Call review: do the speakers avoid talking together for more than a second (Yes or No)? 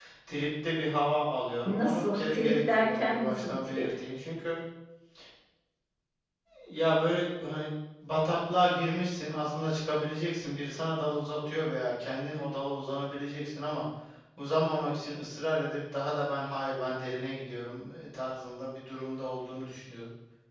No